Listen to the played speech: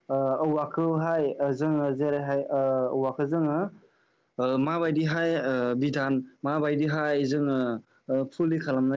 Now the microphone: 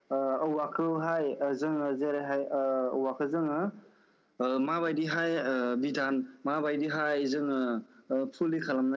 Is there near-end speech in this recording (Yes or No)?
No